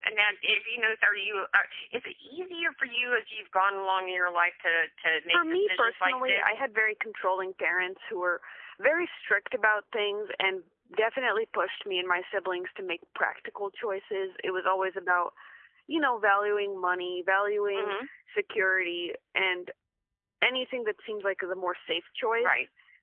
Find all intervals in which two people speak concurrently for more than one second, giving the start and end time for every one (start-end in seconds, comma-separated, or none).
5.3-6.6